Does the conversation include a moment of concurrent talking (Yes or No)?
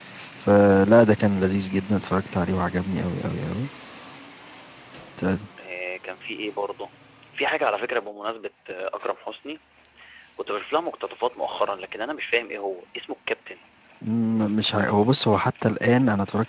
No